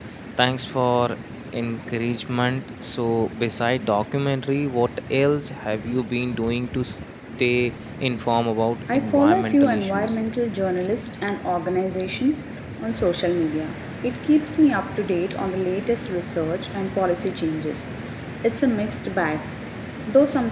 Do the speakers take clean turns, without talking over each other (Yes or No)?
No